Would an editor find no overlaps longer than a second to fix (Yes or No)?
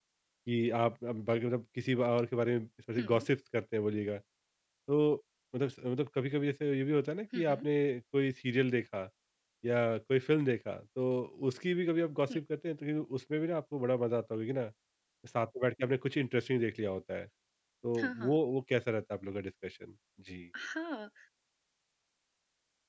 Yes